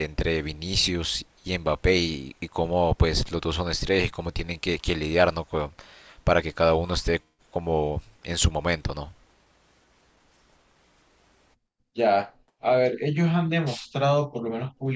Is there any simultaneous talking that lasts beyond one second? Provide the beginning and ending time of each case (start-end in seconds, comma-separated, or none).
none